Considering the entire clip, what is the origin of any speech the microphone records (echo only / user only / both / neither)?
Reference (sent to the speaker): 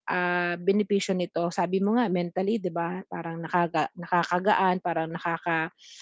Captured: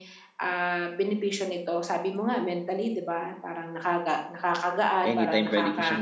both